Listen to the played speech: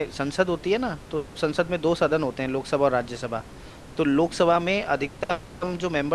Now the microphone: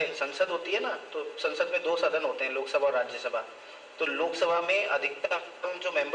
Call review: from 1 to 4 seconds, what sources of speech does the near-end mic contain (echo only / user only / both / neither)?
echo only